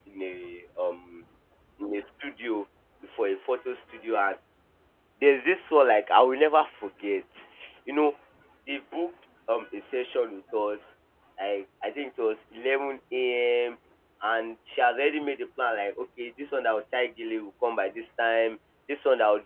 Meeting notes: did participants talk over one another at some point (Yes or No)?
No